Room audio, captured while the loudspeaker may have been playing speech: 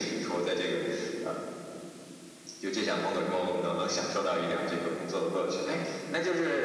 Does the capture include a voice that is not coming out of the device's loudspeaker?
No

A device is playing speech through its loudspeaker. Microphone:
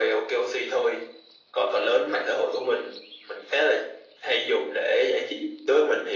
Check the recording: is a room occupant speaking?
No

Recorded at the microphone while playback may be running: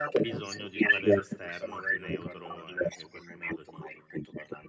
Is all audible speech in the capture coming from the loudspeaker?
No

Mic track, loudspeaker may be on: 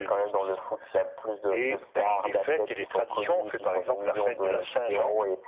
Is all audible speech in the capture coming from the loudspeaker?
Yes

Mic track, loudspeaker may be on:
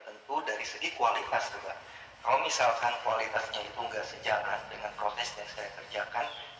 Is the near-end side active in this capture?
No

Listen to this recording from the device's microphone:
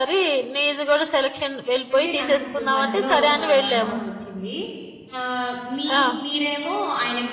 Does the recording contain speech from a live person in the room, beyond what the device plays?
Yes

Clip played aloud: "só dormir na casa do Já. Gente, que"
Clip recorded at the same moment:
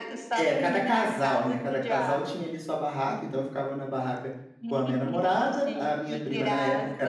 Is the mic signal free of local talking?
No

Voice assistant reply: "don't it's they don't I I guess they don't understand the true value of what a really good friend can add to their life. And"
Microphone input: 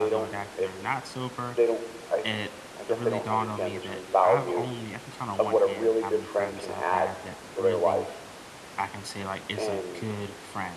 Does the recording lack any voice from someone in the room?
No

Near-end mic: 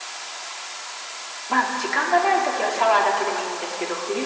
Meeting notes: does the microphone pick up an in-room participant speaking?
No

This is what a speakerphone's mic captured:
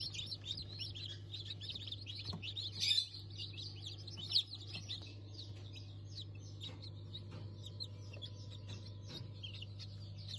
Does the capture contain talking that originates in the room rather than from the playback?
No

